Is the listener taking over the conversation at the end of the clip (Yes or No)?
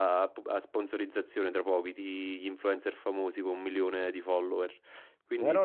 Yes